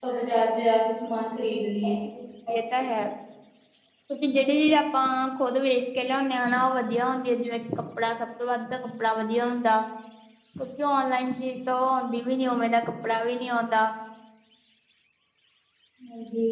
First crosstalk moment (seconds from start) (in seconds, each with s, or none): none